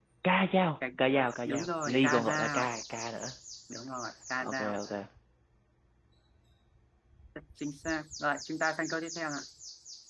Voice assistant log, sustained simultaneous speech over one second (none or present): present